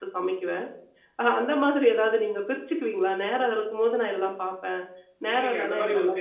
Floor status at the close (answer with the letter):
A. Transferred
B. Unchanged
A